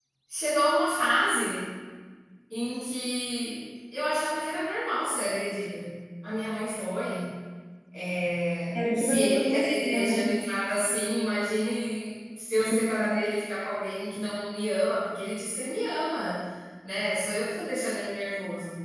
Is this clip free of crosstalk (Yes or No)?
No